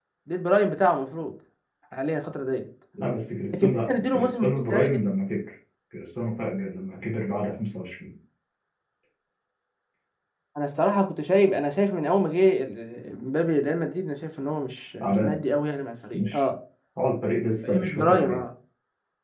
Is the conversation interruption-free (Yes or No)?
No